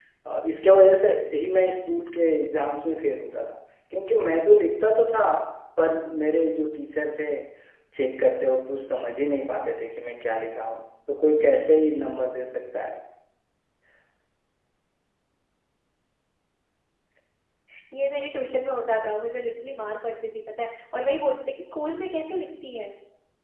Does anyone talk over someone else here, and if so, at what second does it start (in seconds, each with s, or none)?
none